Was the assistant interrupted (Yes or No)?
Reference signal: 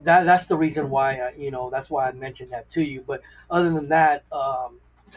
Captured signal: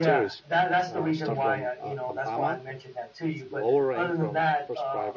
Yes